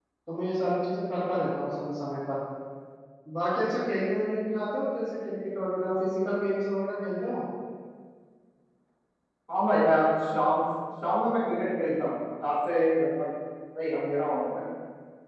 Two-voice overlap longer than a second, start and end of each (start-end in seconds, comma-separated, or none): none